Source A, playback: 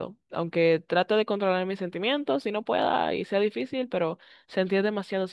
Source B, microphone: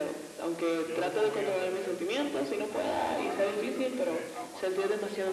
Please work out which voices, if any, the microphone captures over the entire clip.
both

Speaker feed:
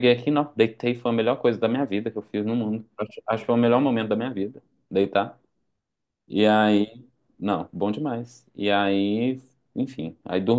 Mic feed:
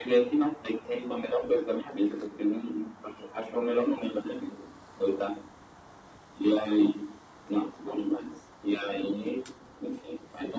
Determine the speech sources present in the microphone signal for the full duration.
echo only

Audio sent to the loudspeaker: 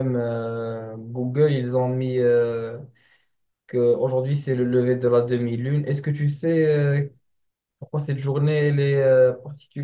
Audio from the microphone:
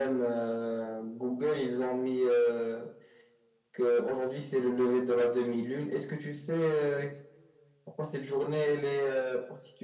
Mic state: echo only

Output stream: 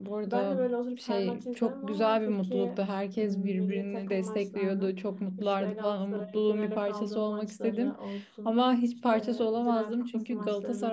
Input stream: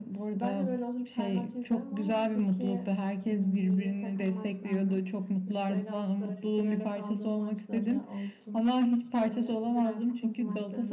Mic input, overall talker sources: echo only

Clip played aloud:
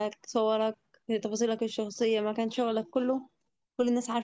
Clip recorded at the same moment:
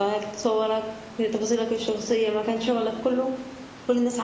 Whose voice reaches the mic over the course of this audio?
echo only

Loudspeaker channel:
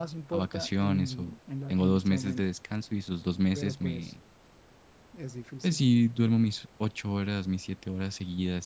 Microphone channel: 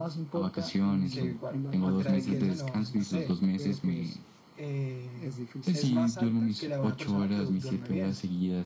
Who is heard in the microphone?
both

